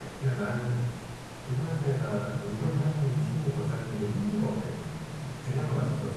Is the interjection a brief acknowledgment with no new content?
Yes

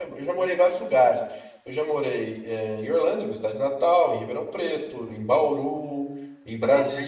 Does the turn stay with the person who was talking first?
Yes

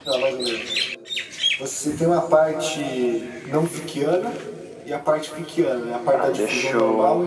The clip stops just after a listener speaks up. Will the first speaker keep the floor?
No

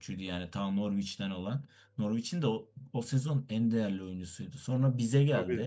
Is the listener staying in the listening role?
Yes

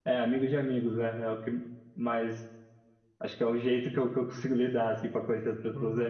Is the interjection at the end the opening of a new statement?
Yes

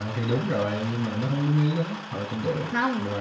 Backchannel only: No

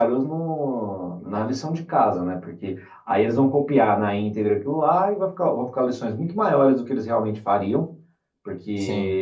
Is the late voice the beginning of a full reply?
No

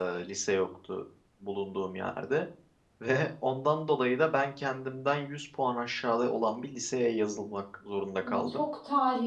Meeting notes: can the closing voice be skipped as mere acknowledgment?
No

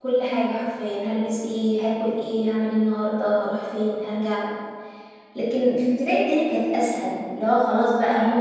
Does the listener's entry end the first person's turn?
No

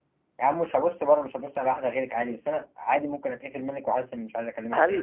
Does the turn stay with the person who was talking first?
No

